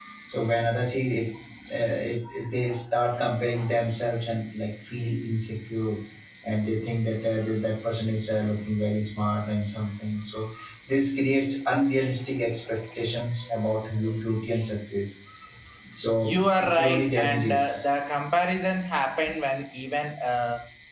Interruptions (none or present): present